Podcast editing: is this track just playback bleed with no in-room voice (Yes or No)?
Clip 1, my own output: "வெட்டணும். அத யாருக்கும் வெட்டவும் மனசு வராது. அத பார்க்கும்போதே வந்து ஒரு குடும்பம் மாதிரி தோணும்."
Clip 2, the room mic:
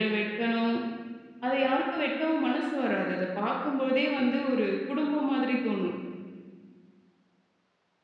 Yes